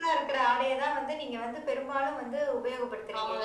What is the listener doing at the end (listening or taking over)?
taking over